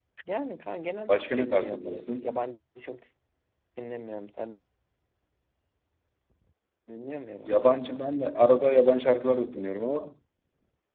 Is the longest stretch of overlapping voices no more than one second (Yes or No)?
No